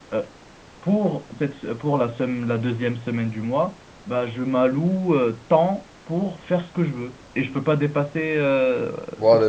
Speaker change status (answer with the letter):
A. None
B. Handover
B